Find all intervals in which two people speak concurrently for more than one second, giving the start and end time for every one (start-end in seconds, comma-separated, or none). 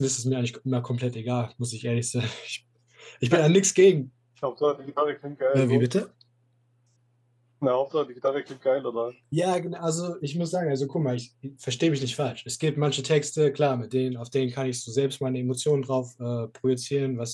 none